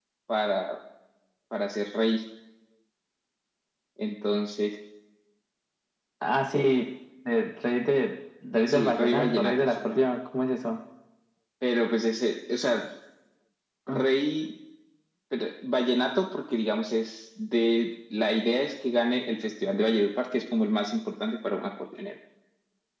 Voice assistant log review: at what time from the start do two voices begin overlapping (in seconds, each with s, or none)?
8.7 s